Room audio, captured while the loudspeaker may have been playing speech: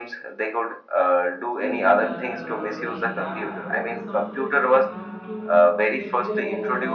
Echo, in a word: present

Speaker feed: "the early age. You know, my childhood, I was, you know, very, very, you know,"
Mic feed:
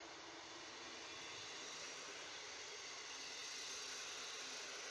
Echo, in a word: none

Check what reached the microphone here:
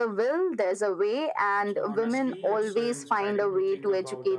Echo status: present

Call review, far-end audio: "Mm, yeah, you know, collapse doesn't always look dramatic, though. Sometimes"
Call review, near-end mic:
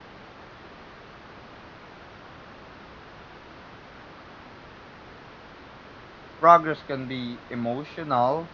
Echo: none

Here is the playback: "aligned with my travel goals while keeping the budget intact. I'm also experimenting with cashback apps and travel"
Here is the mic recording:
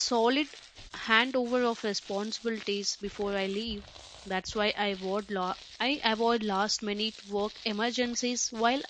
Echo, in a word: none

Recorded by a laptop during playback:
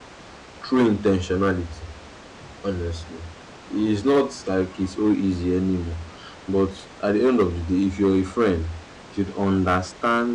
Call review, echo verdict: none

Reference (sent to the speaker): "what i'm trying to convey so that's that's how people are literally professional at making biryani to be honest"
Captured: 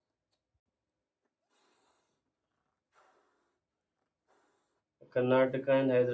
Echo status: none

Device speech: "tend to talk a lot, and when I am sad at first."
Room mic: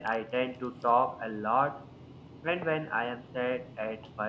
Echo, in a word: present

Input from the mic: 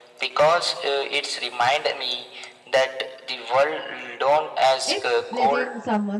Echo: present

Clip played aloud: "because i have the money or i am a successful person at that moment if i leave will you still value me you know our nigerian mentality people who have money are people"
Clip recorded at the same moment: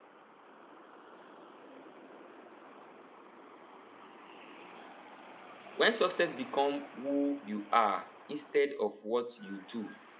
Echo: none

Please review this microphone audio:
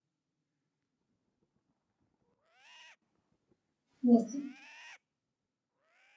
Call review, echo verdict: none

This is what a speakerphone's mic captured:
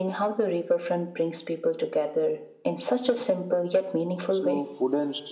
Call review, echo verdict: present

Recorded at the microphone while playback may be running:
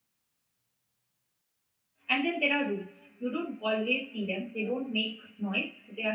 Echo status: none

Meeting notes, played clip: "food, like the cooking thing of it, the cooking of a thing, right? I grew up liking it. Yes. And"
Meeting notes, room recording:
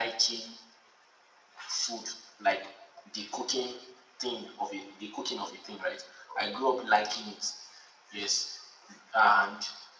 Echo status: present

